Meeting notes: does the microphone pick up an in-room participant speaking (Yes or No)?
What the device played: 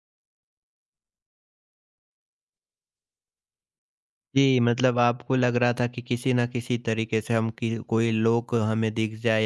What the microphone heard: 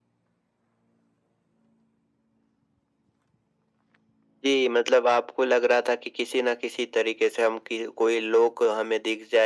No